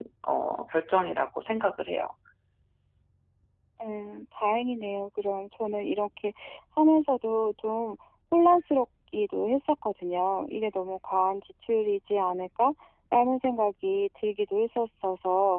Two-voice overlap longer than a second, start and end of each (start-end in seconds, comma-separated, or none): none